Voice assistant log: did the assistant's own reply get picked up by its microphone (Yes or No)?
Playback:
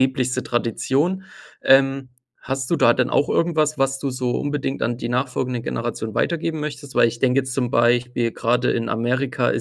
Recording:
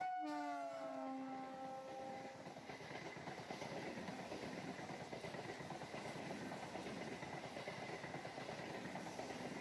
No